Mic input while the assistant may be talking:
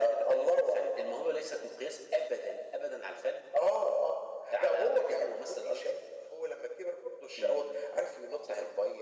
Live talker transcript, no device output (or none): none